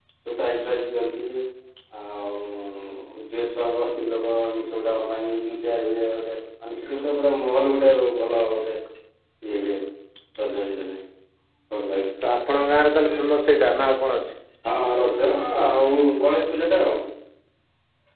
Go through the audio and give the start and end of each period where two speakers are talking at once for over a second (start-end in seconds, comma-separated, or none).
none